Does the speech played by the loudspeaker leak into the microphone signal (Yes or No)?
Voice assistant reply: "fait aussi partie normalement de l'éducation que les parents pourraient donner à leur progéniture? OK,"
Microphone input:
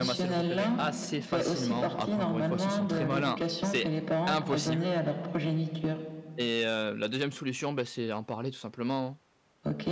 Yes